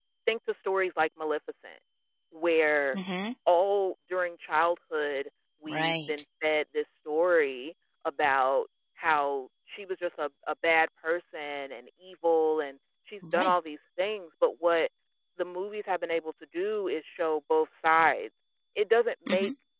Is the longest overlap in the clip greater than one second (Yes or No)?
No